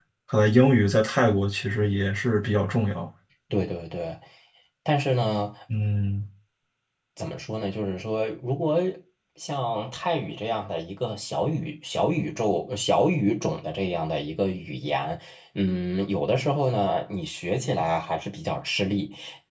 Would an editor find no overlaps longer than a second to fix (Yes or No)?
Yes